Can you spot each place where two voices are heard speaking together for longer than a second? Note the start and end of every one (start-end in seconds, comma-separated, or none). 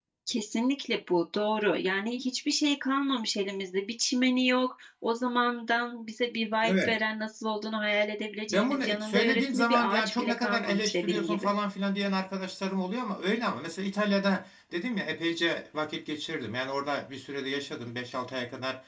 8.5-11.5